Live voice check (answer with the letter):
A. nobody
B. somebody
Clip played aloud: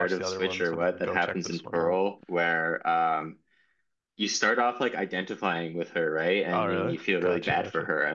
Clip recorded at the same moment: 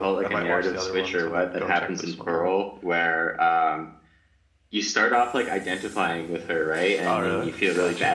A